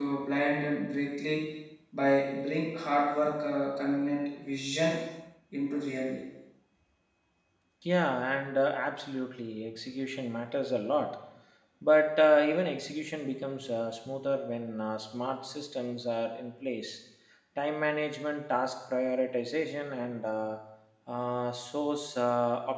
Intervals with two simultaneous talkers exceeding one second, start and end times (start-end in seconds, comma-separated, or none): none